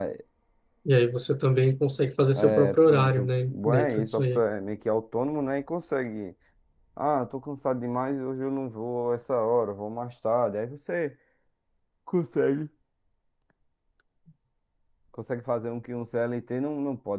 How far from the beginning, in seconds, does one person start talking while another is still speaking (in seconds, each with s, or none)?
2.4 s